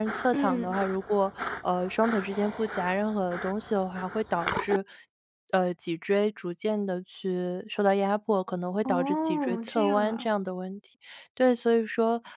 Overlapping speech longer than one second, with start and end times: 8.8-10.3

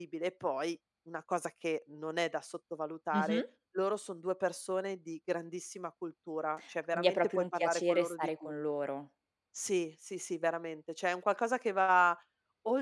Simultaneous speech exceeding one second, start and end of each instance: 6.9-8.5

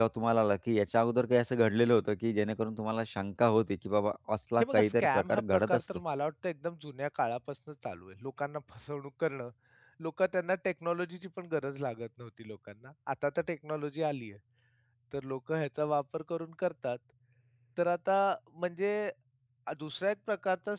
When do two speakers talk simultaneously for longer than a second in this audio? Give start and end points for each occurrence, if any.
4.6-5.8

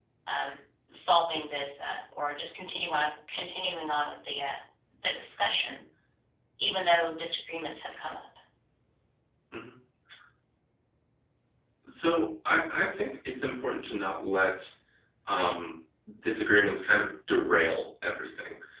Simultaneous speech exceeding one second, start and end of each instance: none

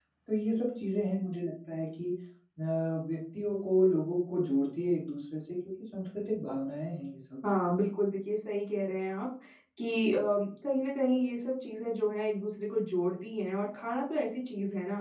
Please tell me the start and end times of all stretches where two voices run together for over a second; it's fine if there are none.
none

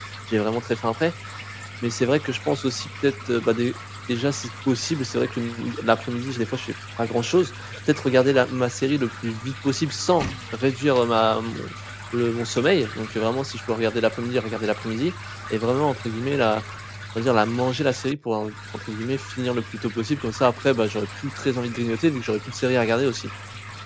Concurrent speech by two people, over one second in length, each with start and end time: none

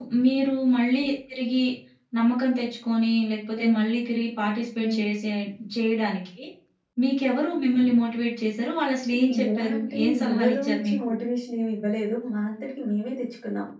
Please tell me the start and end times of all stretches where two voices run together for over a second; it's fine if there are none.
9.6-11.1

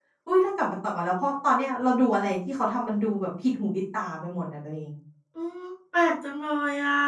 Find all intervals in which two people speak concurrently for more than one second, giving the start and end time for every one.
none

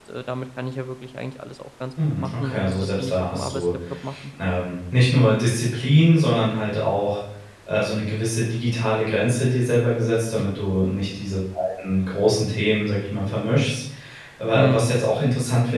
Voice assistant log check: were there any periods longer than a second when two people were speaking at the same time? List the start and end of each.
2.2-3.6

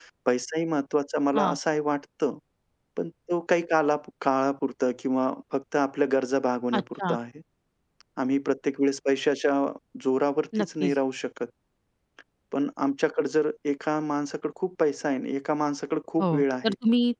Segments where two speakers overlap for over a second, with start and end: none

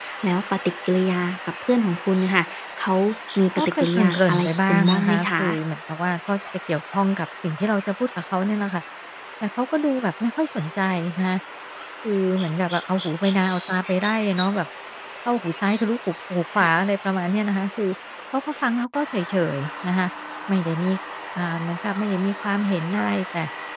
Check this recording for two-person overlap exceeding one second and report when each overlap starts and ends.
3.6-5.4

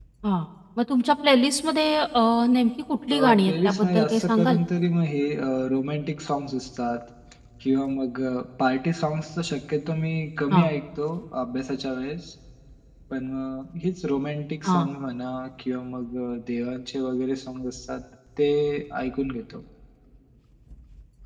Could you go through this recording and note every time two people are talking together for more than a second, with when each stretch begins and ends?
3.1-4.6

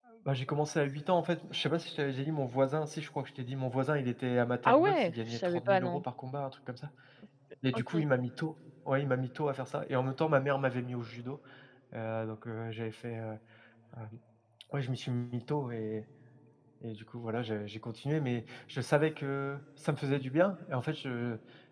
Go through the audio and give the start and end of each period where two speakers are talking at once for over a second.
4.7-6.0

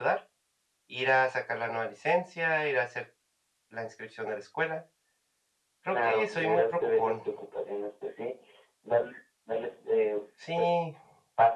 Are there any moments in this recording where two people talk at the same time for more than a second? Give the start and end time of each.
5.9-7.2

